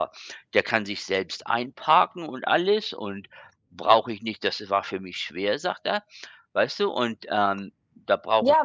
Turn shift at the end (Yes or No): Yes